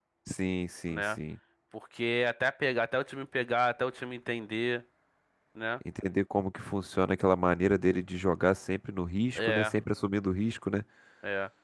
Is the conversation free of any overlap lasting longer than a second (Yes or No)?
Yes